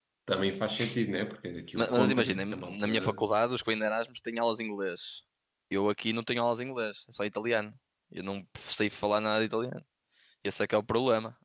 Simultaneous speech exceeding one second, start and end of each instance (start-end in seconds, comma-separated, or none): 1.8-3.2